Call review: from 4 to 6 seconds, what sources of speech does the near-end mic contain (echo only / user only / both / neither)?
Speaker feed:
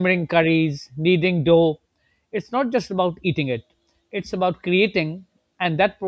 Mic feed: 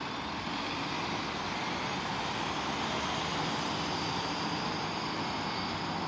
neither